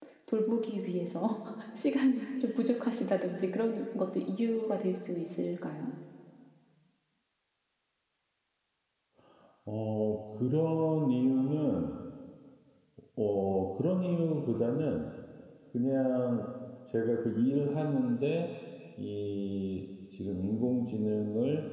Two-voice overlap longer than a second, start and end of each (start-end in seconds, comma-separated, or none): none